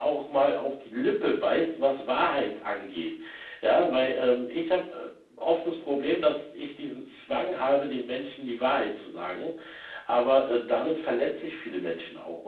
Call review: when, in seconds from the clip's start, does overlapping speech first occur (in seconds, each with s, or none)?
none